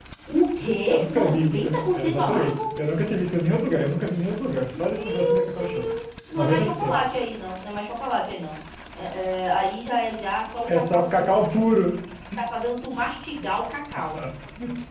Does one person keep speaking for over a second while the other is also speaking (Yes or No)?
Yes